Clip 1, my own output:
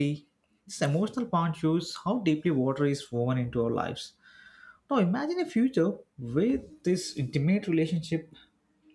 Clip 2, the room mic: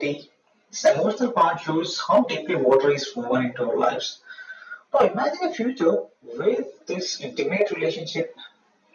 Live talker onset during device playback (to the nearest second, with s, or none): none